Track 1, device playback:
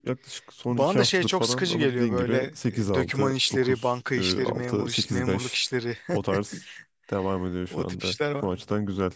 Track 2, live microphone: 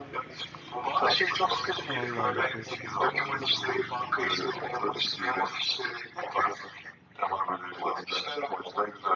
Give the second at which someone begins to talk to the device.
2 s

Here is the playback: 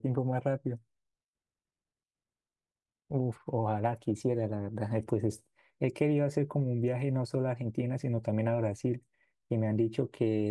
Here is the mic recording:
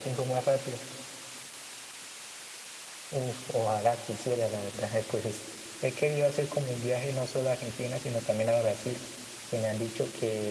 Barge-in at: none

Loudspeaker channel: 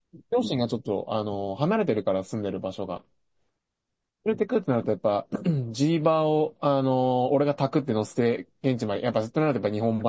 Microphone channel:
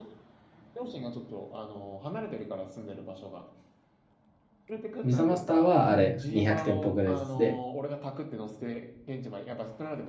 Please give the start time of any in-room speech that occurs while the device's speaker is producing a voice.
5 s

